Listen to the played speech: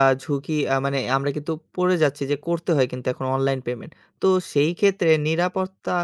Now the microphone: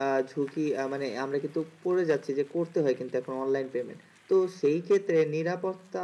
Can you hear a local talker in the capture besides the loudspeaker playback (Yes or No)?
No